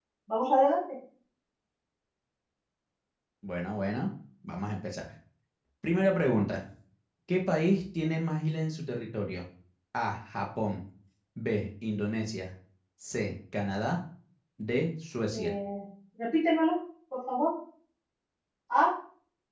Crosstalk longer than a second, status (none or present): none